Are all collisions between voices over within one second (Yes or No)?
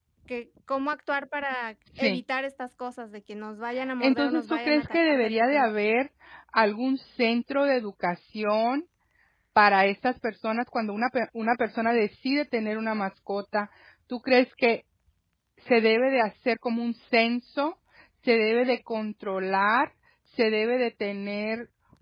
No